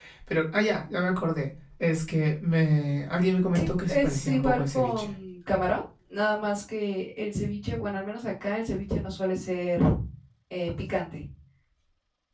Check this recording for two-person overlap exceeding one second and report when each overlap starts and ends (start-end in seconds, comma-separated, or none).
3.5-5.1